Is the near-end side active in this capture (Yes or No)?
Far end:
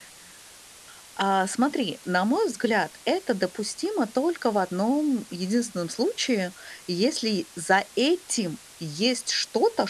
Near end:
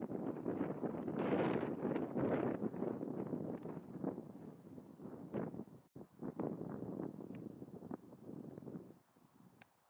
No